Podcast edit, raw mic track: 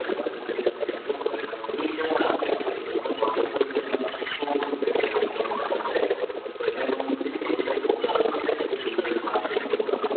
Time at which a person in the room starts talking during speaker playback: none

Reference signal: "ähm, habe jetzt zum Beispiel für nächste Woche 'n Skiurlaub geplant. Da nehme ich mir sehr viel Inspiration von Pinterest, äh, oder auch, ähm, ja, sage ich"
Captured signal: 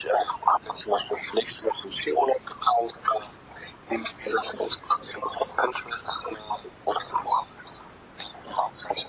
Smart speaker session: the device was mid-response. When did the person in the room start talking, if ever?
none

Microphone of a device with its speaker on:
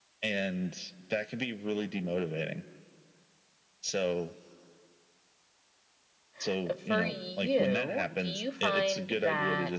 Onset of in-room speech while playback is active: 6.5 s

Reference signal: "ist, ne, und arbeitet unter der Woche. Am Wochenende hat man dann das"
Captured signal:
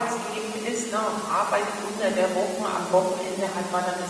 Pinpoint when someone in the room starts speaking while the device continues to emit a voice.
none

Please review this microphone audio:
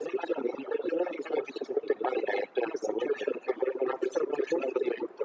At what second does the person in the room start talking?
none

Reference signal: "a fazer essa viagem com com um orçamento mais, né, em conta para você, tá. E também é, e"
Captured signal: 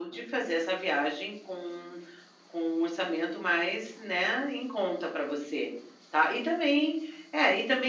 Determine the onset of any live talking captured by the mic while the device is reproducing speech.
none

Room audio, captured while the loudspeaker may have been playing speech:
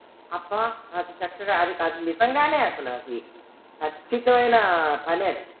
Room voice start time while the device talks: none

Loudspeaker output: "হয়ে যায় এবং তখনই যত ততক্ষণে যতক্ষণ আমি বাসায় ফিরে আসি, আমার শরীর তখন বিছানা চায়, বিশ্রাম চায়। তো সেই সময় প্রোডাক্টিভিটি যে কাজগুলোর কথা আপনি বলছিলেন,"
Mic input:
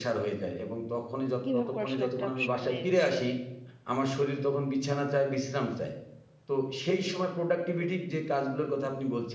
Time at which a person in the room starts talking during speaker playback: 1.4 s

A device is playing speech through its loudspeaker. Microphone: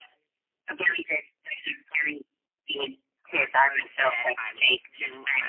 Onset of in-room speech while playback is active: 3.3 s

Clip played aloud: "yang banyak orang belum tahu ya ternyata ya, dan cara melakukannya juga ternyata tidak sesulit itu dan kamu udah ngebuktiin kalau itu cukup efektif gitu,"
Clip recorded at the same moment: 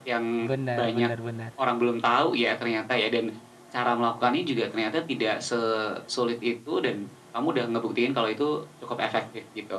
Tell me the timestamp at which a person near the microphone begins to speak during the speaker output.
0.5 s

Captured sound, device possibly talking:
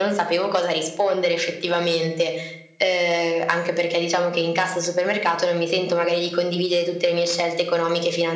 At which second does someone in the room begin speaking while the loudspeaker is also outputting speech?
none

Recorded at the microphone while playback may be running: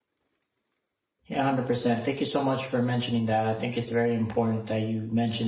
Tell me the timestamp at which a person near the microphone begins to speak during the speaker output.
1.2 s

